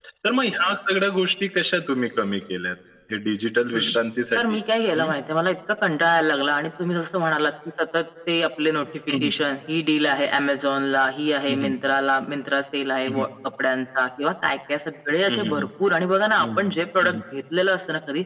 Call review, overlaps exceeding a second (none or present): none